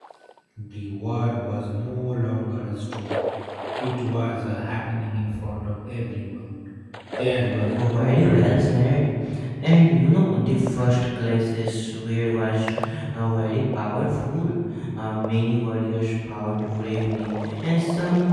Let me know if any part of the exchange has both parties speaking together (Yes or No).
Yes